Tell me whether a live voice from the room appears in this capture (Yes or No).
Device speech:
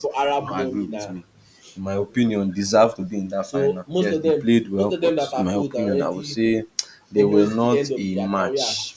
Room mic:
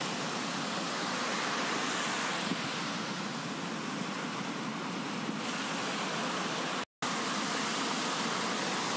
No